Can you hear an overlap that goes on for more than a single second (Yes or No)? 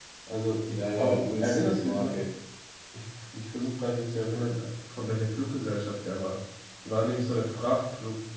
Yes